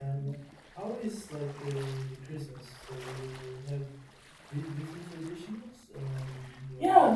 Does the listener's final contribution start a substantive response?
Yes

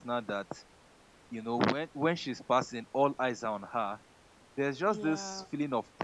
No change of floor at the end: Yes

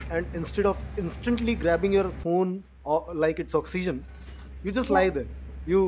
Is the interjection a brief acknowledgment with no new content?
Yes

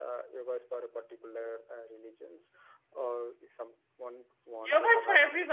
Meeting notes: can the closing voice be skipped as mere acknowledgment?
No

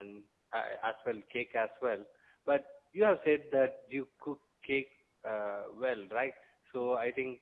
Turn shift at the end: No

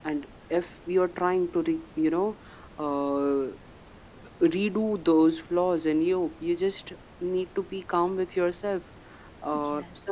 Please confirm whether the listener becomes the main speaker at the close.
No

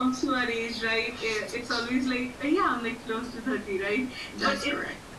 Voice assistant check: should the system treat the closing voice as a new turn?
No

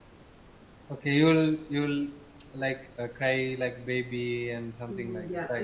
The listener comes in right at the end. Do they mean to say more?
Yes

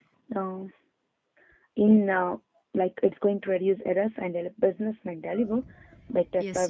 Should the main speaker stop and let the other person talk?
Yes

